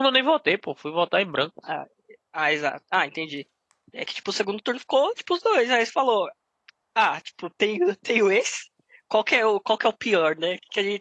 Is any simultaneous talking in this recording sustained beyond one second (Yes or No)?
No